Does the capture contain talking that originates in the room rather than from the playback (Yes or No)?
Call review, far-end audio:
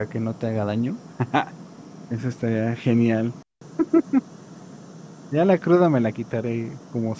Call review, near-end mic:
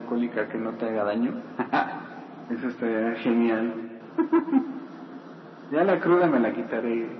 No